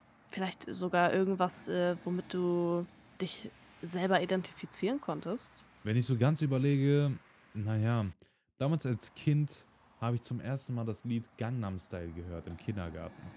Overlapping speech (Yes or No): No